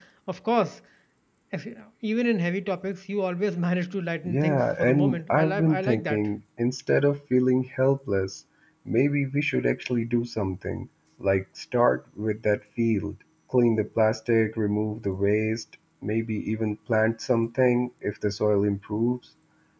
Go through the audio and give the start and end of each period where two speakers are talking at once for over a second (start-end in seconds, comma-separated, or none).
4.2-6.3